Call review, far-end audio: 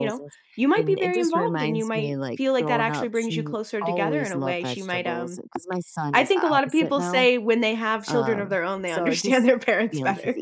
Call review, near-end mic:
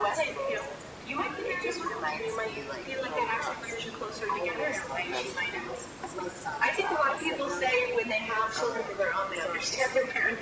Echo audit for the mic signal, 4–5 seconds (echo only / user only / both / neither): echo only